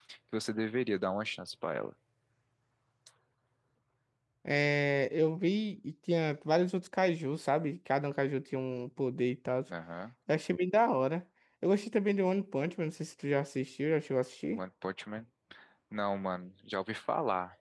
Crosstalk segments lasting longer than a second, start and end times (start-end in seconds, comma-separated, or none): none